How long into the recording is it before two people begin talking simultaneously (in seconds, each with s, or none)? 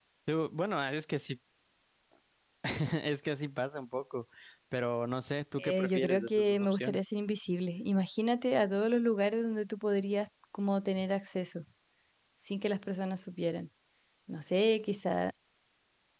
5.6 s